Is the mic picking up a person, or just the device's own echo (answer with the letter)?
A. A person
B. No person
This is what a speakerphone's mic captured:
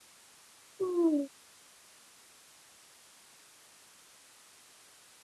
A